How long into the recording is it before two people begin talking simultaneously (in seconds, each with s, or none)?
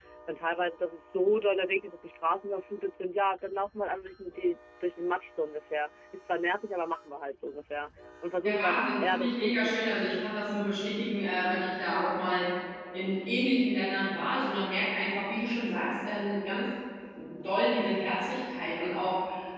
8.4 s